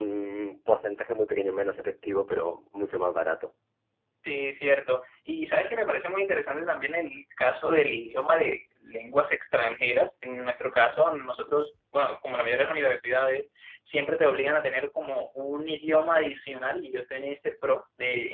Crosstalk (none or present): none